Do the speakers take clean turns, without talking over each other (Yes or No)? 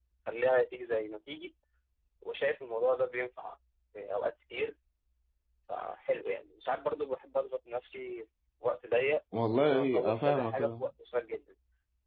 No